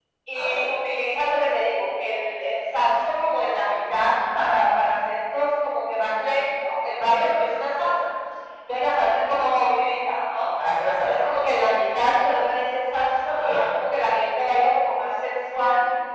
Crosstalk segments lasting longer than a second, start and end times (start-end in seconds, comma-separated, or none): none